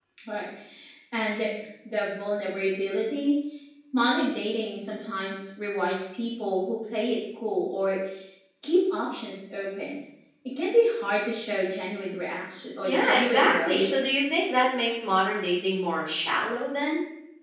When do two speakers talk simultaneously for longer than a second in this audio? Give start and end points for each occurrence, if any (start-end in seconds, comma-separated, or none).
12.8-14.1